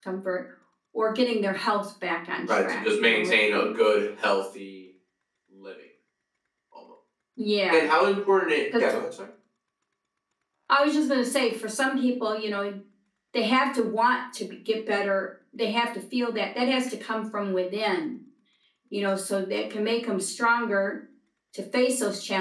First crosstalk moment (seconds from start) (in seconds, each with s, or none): 2.5 s